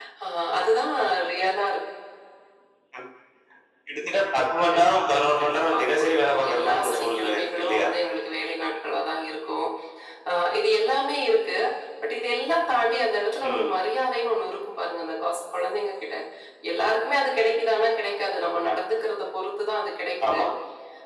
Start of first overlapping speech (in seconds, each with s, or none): 4.7 s